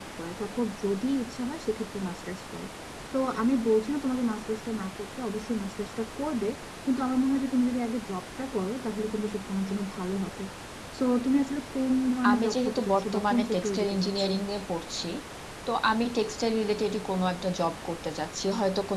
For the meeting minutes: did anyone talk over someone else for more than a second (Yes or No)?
Yes